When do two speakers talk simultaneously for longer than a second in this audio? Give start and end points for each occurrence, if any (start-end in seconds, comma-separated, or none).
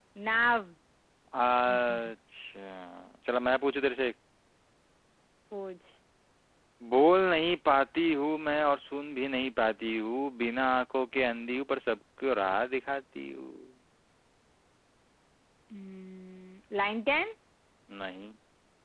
none